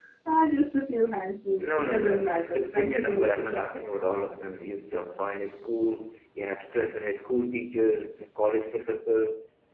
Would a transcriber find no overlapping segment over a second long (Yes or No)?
No